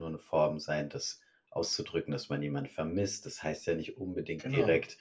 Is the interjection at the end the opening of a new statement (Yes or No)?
No